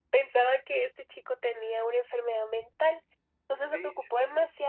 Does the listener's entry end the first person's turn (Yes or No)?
No